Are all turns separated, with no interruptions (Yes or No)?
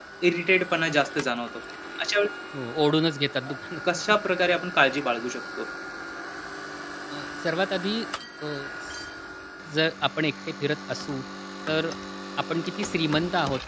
Yes